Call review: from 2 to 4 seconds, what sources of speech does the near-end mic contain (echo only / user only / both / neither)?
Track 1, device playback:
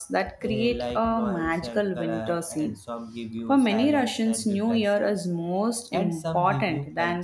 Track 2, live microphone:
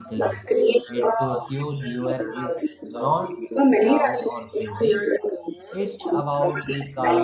both